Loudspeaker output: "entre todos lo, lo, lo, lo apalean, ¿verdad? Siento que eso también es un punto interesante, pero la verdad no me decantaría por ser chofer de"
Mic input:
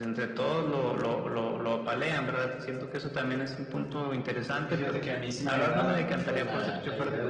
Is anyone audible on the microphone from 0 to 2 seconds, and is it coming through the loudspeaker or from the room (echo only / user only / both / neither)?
echo only